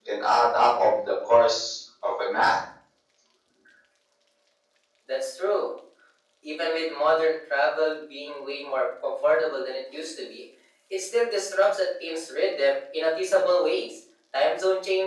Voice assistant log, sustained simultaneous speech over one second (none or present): none